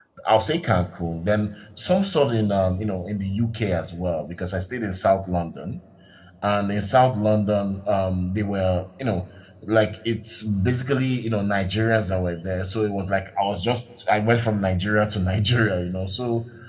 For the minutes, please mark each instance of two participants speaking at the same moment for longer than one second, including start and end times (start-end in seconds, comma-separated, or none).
none